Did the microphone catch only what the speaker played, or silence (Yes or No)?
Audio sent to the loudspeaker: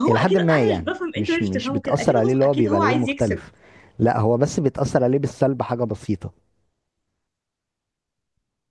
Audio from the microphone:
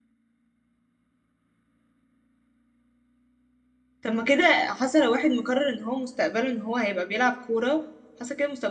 No